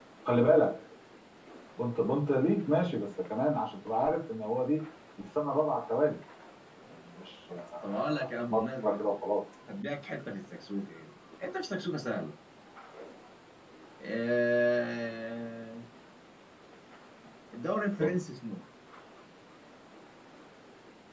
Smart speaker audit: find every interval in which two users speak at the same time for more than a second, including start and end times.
7.5-9.1

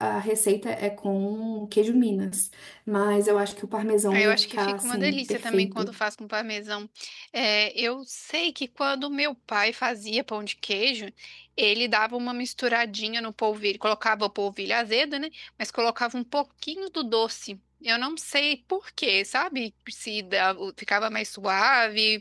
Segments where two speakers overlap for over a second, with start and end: 4.1-5.9

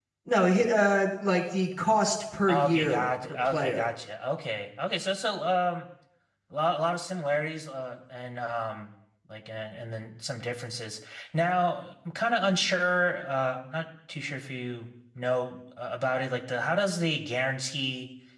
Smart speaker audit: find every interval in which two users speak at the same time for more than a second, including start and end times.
2.5-3.8

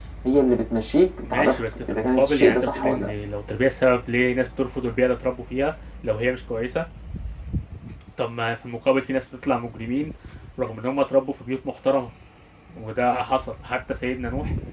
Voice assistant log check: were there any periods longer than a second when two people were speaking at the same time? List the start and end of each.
1.2-3.1

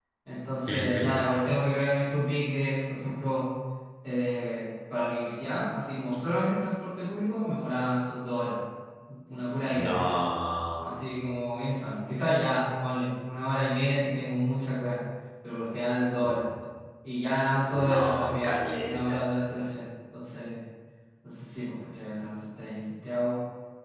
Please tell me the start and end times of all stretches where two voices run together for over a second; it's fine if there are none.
17.7-19.2

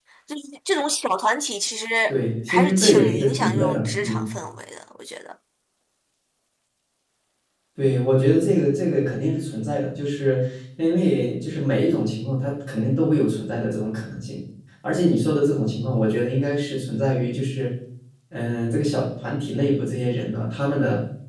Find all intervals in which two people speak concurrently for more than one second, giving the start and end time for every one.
2.5-4.3

